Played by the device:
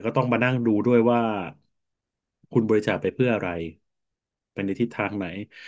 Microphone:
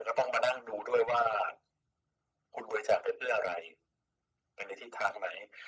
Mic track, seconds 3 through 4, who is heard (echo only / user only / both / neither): echo only